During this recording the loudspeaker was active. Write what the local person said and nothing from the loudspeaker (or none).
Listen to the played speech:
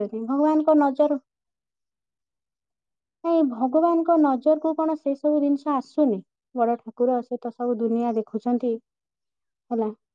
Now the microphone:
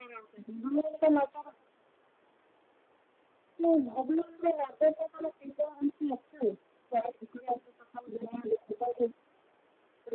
none